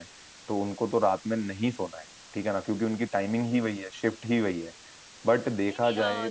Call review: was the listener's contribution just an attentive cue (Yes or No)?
No